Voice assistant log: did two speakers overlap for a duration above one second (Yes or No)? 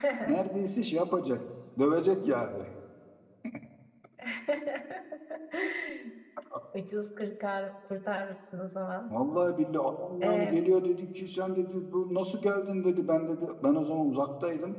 No